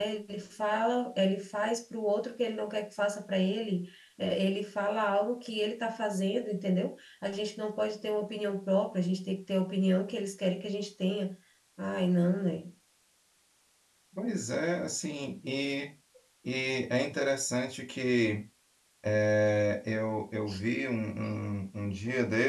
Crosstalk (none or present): none